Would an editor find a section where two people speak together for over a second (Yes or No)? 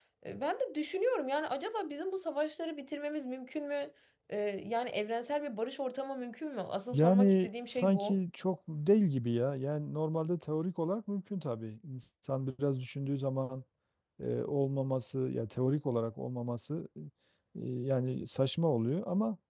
Yes